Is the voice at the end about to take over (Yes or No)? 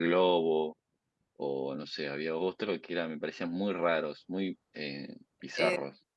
Yes